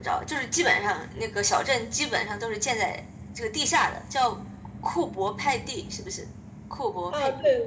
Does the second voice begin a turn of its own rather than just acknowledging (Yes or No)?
Yes